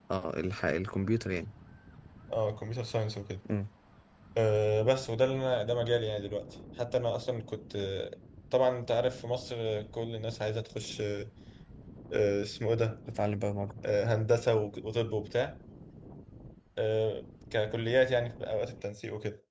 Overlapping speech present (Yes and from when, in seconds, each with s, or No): No